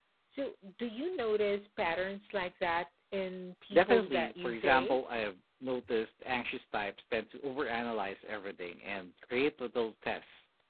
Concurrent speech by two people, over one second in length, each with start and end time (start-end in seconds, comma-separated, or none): 3.7-5.0